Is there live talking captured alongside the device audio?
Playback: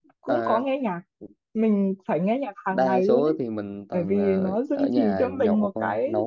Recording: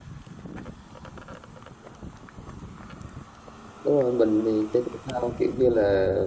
Yes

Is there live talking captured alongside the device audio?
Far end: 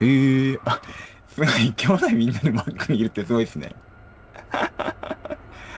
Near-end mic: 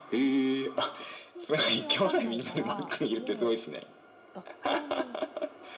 Yes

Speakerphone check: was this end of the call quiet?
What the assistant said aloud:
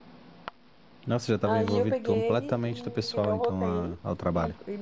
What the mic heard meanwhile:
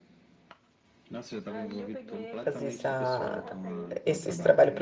No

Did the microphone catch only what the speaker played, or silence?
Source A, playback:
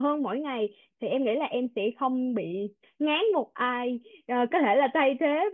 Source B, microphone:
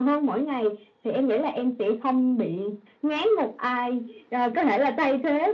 Yes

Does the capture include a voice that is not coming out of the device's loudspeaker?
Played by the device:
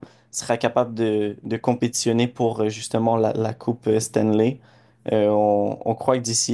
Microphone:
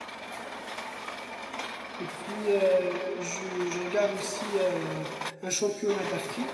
Yes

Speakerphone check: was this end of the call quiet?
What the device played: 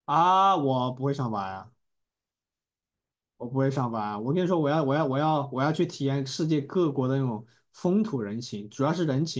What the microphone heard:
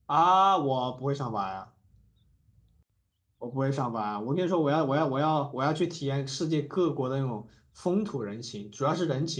Yes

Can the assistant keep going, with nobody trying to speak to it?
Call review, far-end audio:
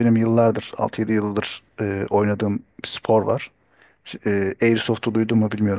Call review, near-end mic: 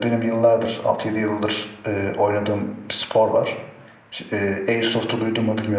Yes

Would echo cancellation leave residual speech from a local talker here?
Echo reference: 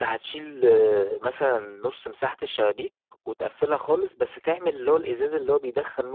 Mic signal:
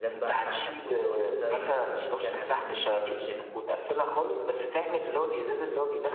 Yes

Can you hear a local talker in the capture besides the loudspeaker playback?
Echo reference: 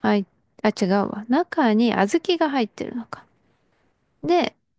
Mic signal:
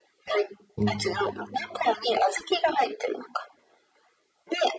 Yes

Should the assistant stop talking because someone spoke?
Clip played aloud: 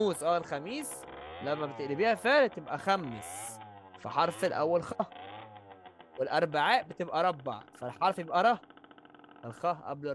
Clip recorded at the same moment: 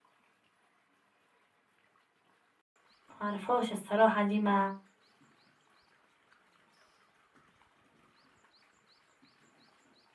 Yes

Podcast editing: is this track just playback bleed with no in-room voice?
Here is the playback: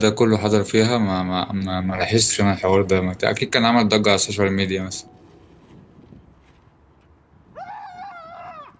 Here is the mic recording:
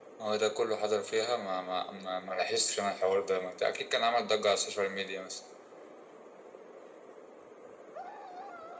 Yes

